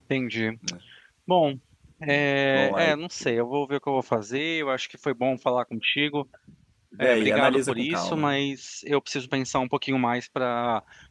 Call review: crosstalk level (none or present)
present